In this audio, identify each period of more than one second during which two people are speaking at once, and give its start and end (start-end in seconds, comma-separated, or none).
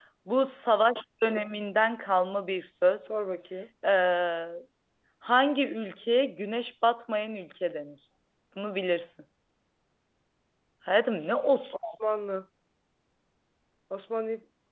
none